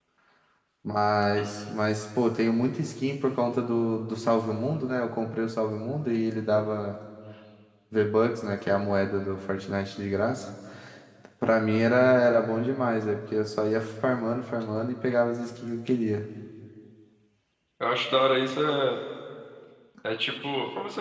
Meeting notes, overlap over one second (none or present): none